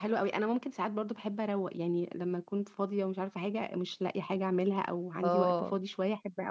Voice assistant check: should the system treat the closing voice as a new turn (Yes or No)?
No